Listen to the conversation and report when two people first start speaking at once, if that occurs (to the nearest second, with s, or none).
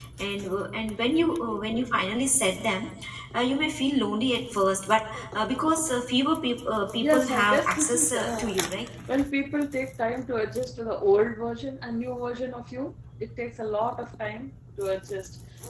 7 s